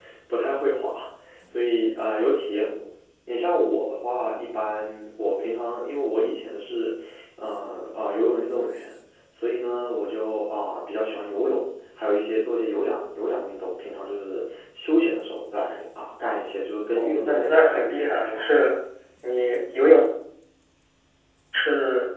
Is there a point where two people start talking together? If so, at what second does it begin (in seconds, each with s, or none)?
17.0 s